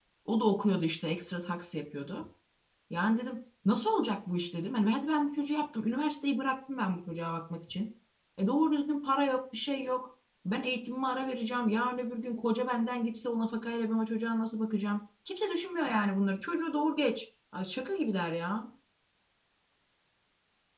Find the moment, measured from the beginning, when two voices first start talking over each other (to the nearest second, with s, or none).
none